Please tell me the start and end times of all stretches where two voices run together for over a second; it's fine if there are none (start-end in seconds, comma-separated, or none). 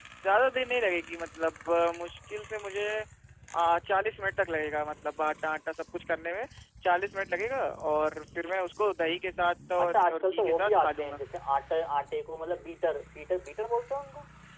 9.8-11.2